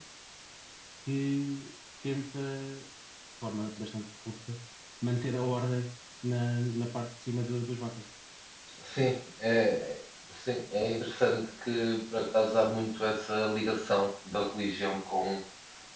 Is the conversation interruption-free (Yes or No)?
Yes